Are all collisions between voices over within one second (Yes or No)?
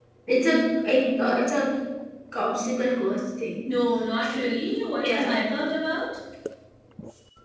Yes